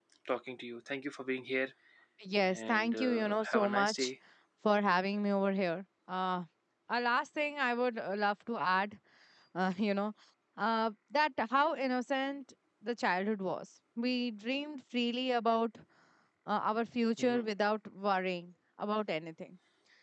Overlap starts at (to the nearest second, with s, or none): 2 s